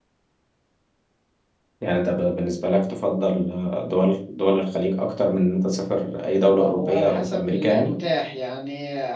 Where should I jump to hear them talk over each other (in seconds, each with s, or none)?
6.5 s